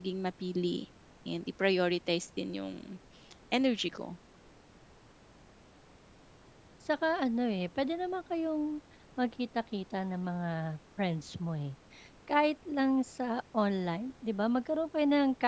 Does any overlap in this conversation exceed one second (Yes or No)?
No